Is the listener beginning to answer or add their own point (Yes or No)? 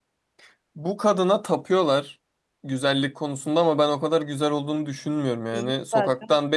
No